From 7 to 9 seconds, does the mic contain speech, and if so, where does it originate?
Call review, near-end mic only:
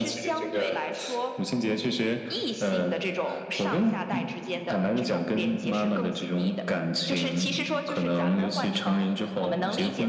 echo only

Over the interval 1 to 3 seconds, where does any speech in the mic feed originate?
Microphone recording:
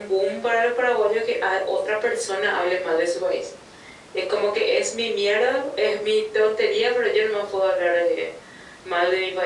echo only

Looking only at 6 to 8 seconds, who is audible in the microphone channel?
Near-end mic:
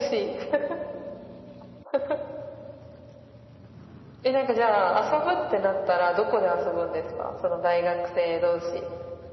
echo only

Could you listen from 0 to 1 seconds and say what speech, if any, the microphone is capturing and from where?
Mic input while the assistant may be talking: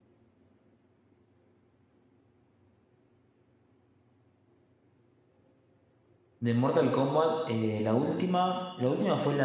neither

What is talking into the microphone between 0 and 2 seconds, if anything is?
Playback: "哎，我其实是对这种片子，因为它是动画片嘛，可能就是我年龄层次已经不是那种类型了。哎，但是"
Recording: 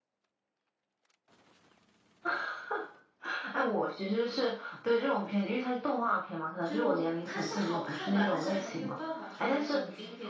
neither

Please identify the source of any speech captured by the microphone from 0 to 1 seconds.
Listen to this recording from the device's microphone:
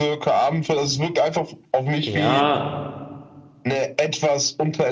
echo only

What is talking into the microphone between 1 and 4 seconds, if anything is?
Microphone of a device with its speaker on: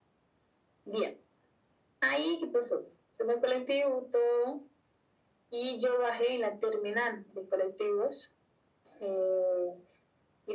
echo only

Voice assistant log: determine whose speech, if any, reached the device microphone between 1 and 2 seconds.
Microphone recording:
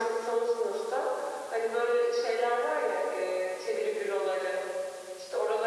echo only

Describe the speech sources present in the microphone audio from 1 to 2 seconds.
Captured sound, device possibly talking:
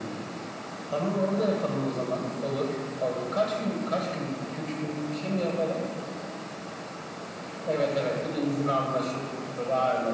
echo only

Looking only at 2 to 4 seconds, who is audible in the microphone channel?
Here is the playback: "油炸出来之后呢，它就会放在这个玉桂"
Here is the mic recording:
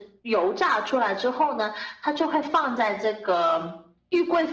echo only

